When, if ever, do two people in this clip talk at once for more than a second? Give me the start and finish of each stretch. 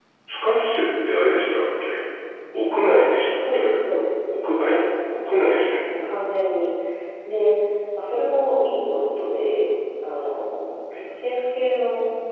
none

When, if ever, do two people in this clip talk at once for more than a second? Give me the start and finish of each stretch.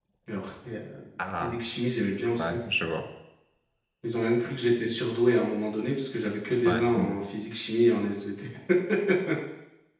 none

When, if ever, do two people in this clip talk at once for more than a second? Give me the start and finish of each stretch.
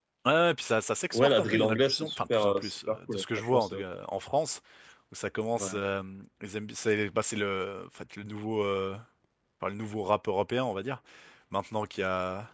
1.1-3.8

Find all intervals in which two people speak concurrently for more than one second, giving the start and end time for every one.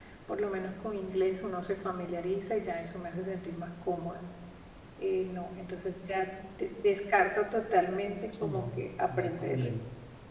8.4-9.7

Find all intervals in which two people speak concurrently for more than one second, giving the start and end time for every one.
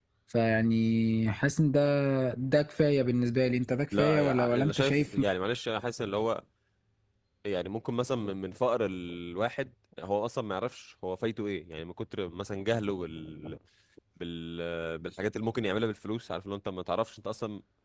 4.0-5.2

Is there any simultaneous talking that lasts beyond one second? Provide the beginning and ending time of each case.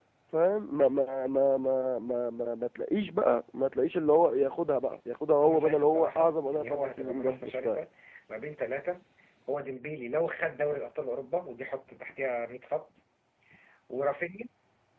5.4-7.8

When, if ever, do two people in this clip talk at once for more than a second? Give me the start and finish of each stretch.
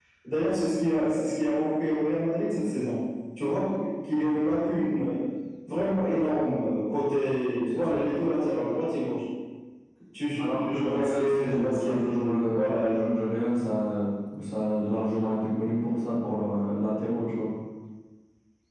10.4-12.9

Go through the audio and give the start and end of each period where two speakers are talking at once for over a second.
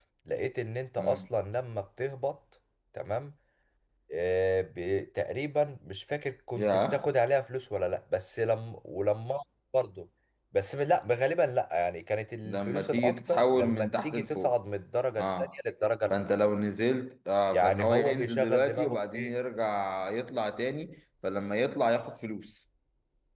12.4-14.5, 17.5-19.3

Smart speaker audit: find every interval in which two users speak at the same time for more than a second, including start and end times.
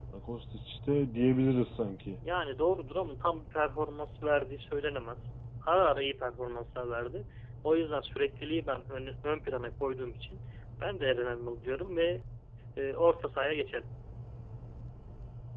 none

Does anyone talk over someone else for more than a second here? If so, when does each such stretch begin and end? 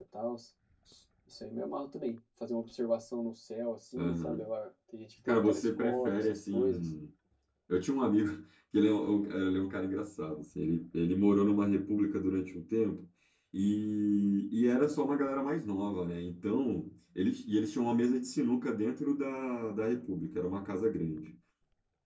5.3-6.9

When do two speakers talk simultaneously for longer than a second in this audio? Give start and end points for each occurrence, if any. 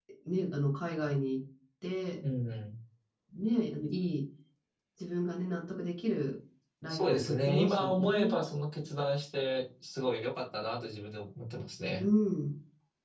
6.9-8.4

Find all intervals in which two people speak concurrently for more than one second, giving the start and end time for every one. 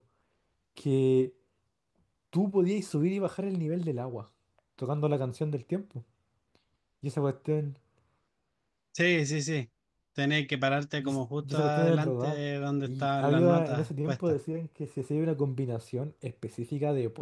11.0-12.4, 12.8-14.3

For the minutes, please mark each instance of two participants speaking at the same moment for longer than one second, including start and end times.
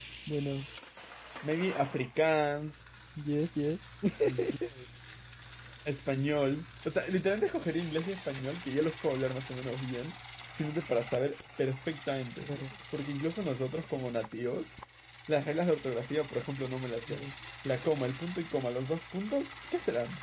none

